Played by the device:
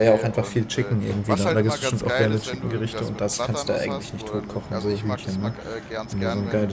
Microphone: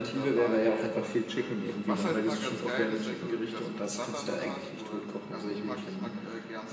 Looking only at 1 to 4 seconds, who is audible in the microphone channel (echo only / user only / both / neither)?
echo only